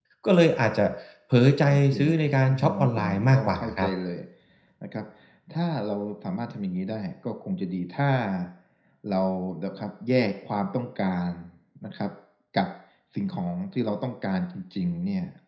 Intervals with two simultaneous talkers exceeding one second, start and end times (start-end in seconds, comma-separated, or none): 1.7-3.9